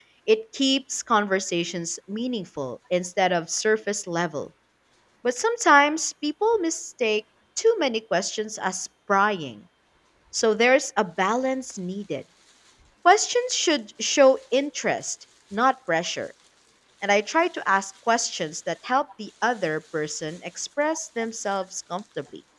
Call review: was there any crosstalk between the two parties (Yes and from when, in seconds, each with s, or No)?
No